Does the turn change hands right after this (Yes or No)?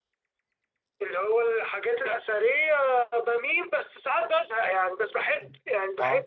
No